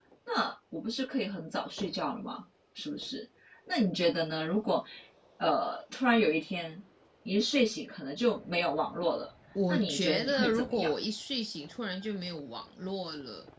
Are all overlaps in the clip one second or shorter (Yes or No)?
No